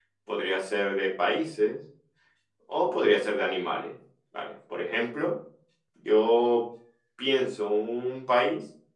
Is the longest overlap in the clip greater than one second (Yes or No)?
No